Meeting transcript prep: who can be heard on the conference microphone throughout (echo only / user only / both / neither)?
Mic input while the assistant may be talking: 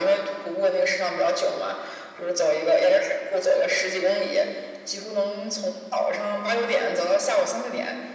echo only